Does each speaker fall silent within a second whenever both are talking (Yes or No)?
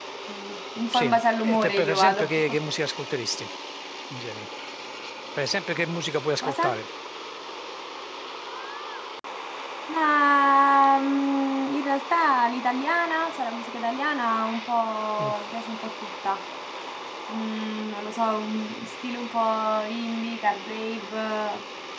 No